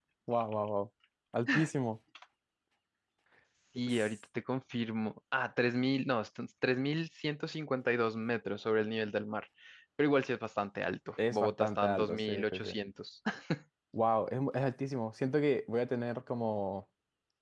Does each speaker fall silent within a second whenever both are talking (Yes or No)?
No